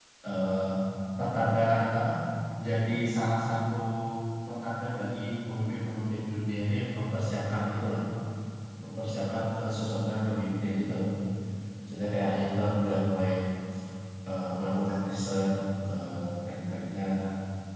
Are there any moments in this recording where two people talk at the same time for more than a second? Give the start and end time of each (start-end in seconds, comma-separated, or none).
none